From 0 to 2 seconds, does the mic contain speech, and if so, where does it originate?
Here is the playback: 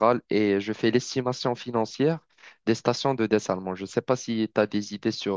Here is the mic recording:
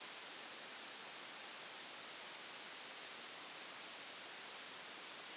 neither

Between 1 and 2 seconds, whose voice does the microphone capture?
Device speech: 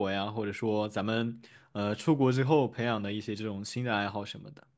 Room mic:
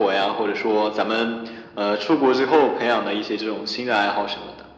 echo only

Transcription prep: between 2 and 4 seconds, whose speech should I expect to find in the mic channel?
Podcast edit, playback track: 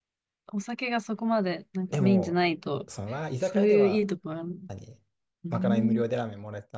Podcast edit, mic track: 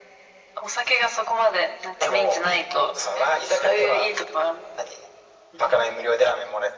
echo only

